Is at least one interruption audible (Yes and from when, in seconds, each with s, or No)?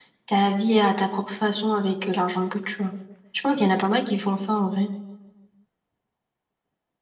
No